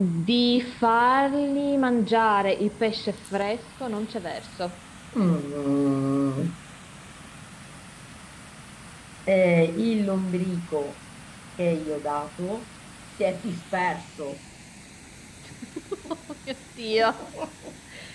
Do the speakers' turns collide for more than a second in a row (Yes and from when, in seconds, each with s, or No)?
No